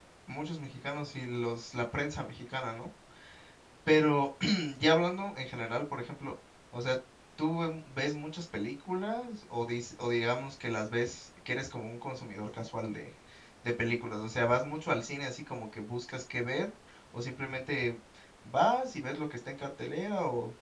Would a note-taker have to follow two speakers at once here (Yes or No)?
No